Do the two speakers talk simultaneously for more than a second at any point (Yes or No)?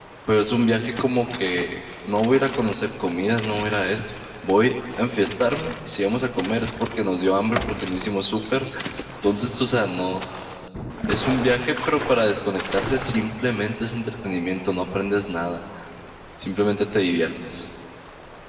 No